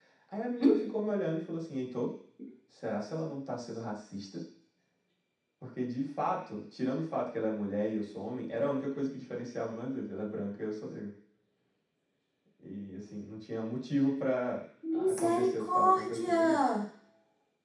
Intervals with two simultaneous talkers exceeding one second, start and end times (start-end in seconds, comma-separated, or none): 14.9-16.6